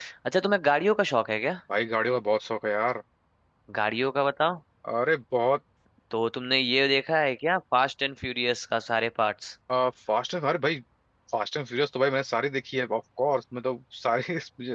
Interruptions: none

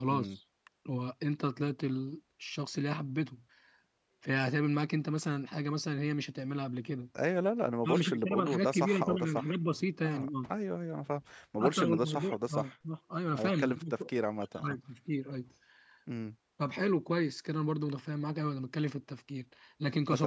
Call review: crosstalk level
present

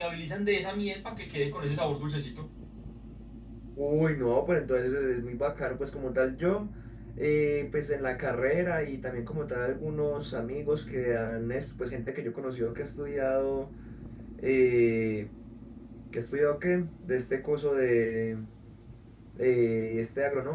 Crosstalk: none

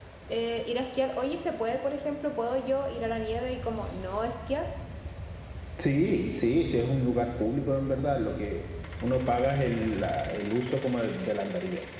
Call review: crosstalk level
none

